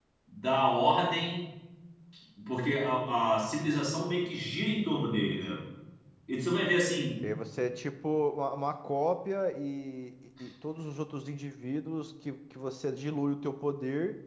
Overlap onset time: none

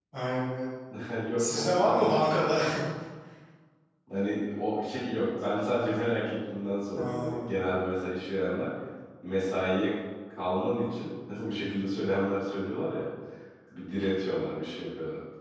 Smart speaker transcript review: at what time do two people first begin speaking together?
1.4 s

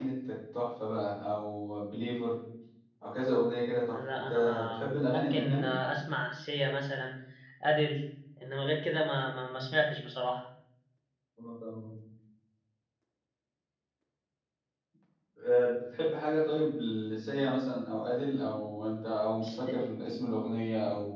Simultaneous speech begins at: 3.9 s

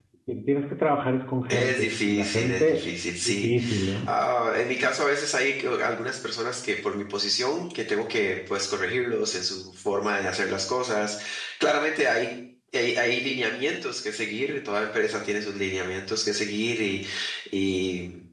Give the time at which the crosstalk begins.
1.5 s

